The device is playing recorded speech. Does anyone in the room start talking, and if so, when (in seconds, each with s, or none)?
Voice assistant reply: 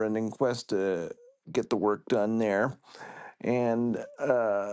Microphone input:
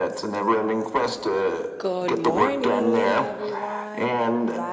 1.8 s